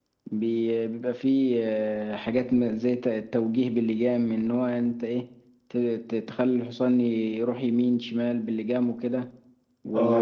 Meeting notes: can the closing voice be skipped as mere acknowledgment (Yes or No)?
No